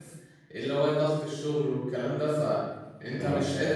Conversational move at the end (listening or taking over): listening